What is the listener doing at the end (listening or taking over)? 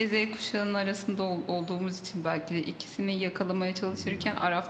listening